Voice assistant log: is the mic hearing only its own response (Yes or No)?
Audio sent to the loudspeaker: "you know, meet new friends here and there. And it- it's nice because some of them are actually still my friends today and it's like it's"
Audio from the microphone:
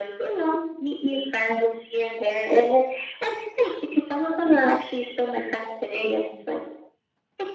Yes